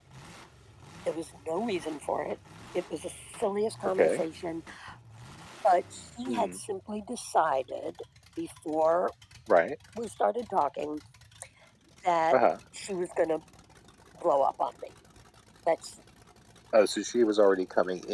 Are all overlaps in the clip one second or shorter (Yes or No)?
Yes